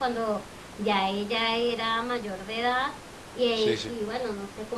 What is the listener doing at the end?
listening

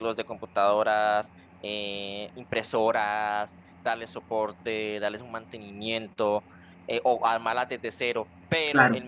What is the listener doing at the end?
listening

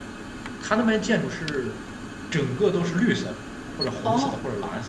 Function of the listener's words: taking over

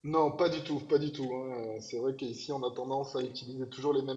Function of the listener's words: listening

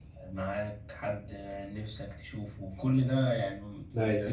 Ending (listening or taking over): listening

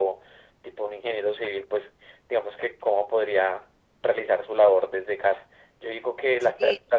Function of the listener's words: listening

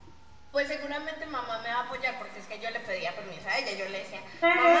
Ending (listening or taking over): taking over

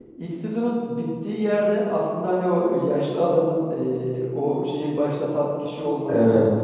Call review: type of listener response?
listening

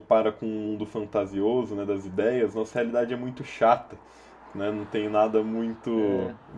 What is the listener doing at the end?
listening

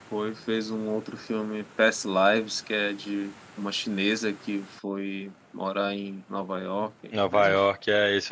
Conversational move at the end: taking over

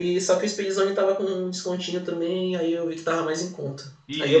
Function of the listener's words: listening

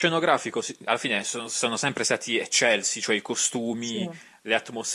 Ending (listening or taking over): listening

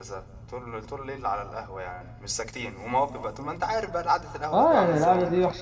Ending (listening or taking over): taking over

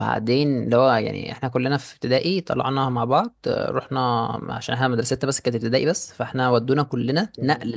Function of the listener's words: listening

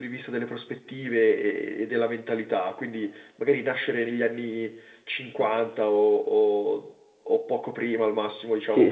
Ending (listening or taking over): taking over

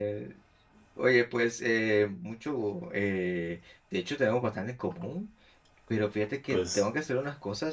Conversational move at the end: listening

